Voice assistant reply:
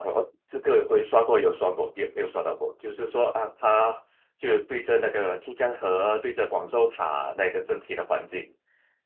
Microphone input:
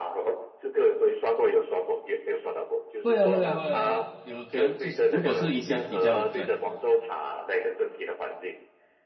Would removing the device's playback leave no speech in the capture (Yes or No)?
No